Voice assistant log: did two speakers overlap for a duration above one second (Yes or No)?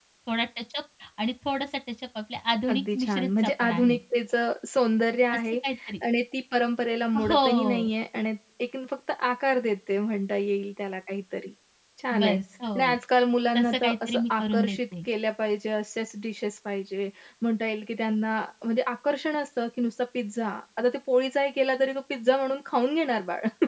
Yes